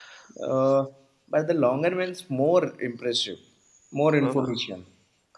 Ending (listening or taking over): listening